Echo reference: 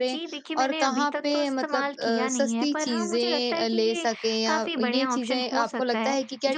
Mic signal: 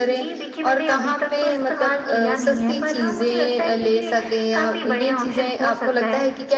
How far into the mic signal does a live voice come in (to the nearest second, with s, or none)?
none